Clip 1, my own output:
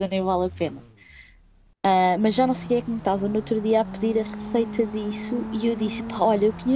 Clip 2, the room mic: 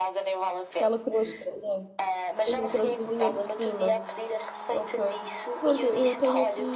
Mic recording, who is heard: both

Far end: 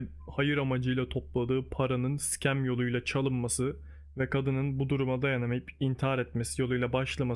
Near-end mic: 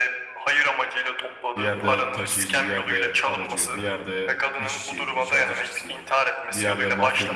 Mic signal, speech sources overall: both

